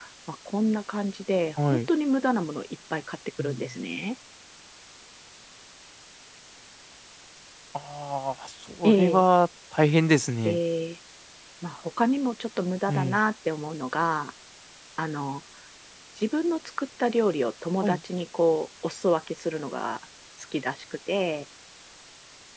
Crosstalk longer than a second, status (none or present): none